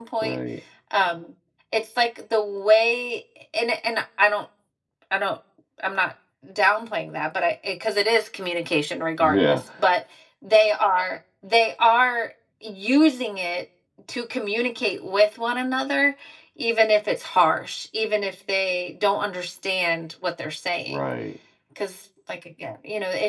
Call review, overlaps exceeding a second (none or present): none